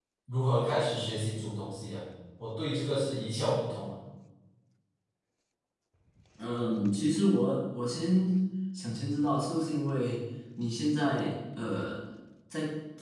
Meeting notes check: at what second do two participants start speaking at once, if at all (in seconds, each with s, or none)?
none